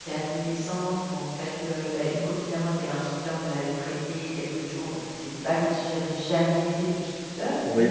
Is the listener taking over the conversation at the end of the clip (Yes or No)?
Yes